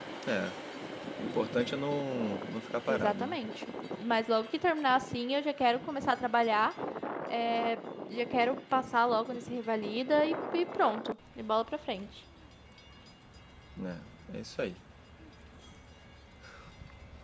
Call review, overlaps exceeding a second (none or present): none